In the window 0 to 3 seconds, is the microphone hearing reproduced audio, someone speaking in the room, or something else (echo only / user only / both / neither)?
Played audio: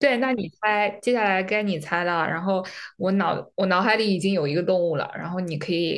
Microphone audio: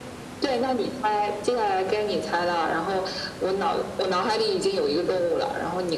echo only